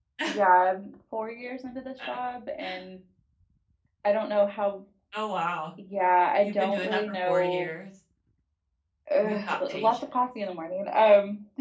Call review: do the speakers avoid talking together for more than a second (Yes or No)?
No